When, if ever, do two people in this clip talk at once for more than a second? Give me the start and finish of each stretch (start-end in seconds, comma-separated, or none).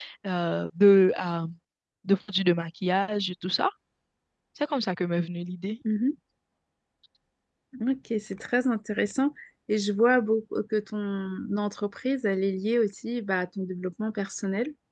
none